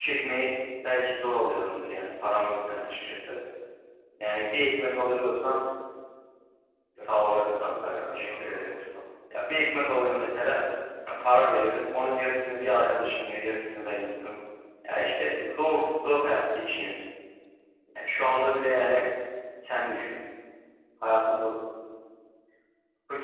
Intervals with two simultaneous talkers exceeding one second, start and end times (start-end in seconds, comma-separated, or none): 7.0-8.7